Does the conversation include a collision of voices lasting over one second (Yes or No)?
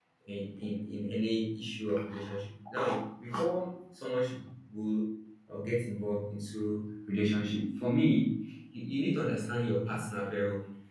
No